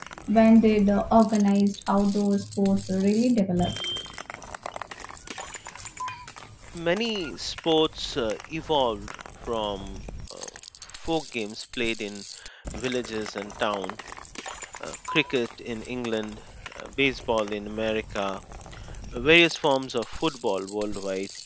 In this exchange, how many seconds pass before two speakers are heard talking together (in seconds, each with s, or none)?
none